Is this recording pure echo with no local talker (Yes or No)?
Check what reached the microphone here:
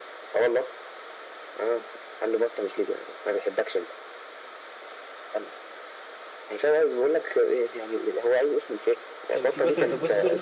No